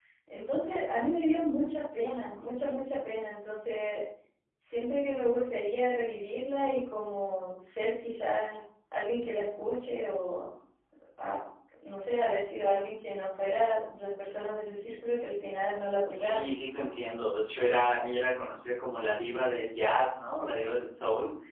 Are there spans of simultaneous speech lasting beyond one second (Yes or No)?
No